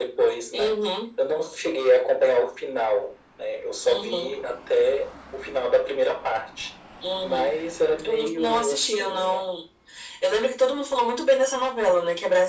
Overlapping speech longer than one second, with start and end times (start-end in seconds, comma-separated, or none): 8.0-9.5